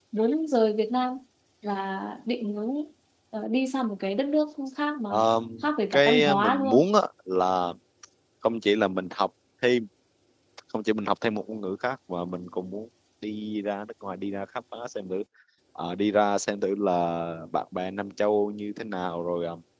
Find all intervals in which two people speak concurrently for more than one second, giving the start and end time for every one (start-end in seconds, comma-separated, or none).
5.6-6.9